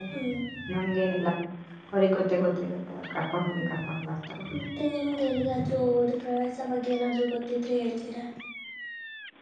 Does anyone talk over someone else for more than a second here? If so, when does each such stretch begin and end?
none

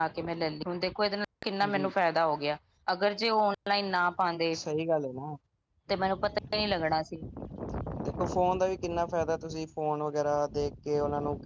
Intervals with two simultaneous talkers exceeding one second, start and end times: none

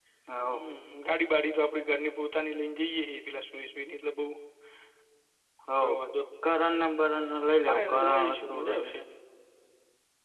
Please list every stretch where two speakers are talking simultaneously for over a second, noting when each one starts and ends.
7.7-8.9

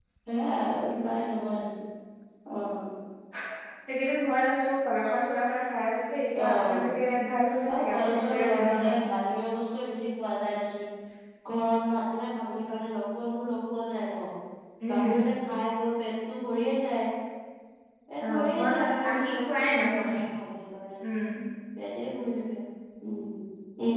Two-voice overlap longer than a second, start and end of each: 7.8-9.0, 18.3-20.1

